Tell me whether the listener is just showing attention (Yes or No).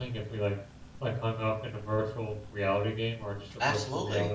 No